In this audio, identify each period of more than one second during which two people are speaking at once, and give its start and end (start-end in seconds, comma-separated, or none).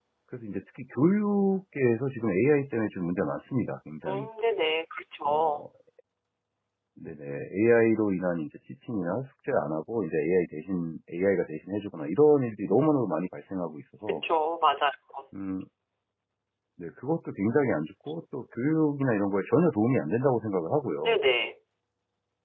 none